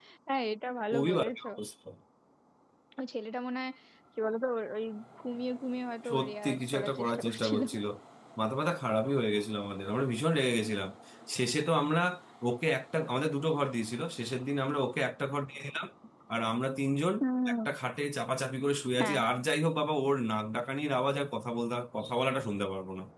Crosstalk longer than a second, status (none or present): present